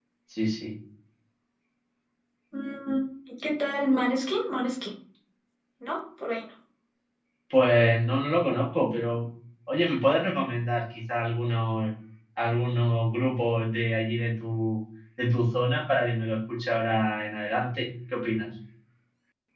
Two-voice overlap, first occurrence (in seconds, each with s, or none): none